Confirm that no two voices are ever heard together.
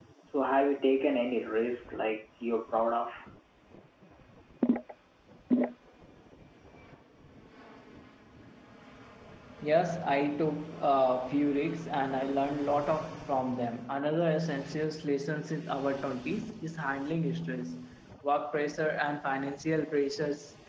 Yes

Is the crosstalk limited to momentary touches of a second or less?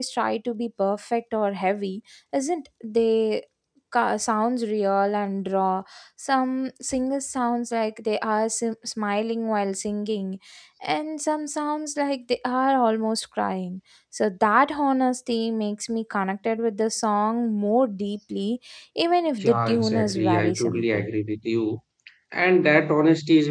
No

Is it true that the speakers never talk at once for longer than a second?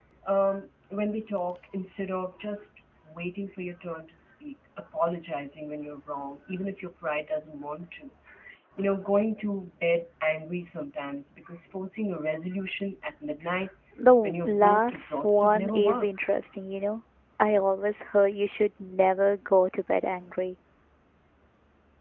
No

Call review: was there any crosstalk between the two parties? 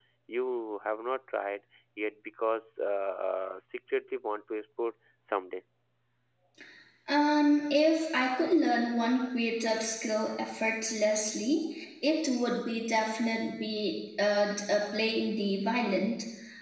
No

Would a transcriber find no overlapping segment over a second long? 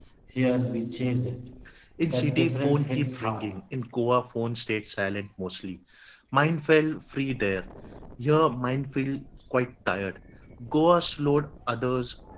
No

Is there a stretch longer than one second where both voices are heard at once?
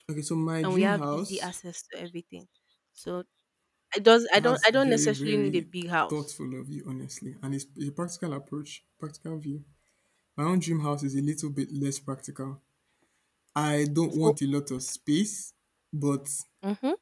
Yes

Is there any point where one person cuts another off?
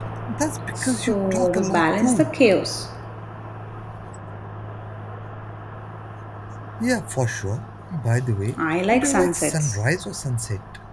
Yes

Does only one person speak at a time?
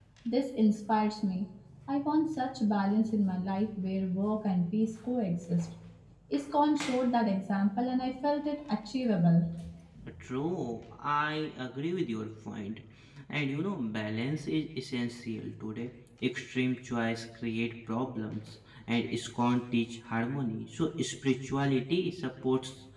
Yes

